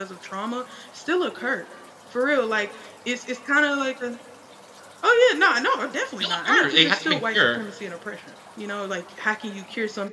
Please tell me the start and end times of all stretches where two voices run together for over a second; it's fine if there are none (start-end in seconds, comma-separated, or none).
6.2-7.6